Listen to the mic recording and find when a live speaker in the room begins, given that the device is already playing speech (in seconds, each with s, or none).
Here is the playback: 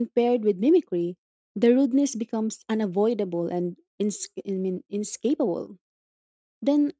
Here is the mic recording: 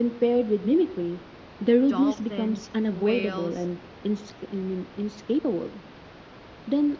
1.8 s